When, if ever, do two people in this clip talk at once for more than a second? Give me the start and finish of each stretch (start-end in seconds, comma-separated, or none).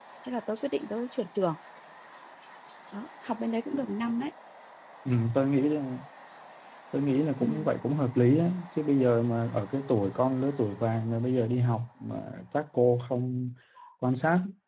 none